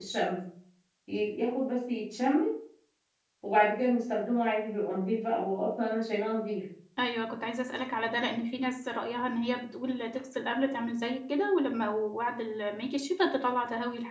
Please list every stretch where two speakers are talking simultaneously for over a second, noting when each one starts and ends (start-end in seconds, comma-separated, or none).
none